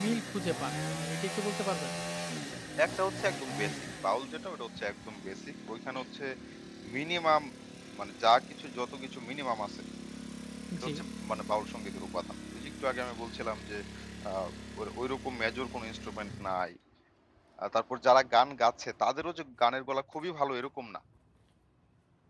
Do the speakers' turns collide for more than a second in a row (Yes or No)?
No